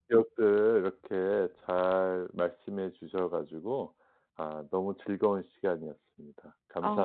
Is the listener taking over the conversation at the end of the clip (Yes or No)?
Yes